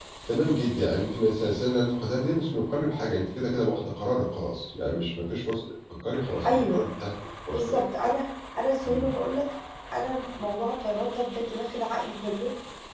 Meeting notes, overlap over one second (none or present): none